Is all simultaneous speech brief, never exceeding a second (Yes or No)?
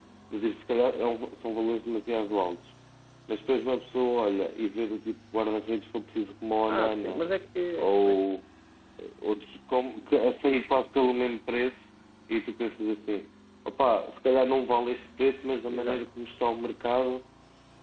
Yes